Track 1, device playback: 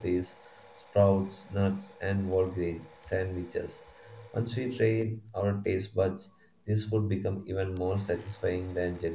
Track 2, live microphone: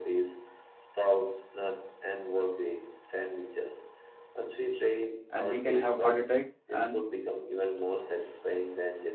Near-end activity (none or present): present